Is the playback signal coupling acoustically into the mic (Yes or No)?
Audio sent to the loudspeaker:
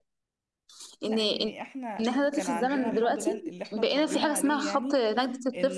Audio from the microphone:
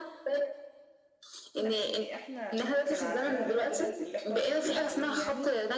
Yes